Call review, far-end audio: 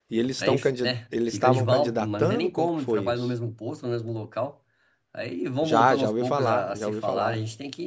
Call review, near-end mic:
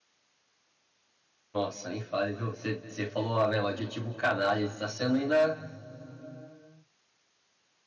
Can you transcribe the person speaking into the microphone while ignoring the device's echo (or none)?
Nossa, nem fale, viu? Você você falou, né, o adjetivo canalha, está sendo ainda,